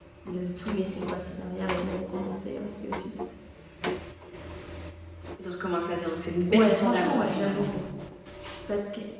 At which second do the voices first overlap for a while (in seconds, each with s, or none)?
6.5 s